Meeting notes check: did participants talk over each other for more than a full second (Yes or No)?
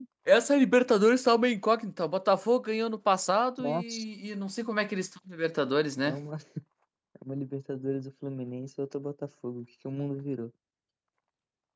No